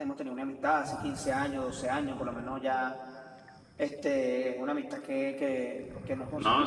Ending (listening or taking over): listening